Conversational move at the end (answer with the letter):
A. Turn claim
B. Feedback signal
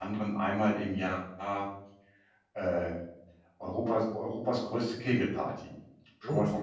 A